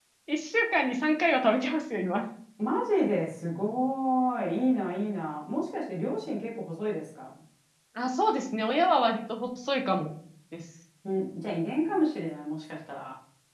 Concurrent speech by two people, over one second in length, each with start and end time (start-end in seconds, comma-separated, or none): none